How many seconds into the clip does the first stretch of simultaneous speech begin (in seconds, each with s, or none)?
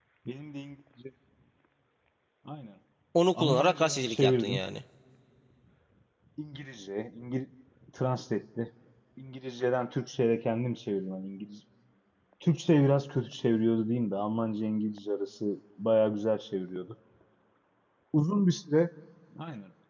3.3 s